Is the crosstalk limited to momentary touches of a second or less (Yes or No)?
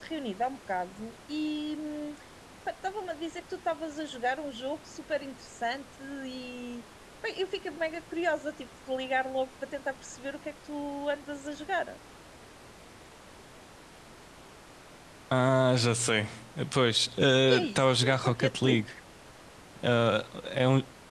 No